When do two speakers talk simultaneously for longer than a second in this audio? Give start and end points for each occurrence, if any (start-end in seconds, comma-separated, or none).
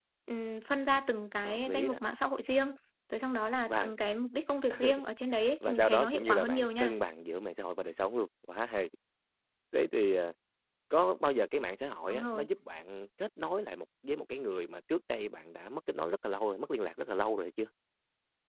5.6-6.9